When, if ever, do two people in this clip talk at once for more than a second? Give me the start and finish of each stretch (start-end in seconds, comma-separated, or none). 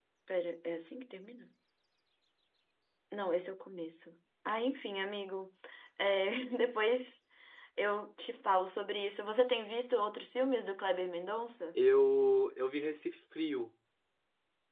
none